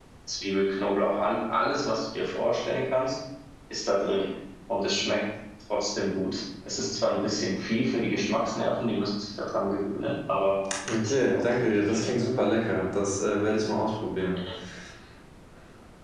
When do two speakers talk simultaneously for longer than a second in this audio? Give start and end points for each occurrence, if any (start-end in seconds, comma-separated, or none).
11.0-12.2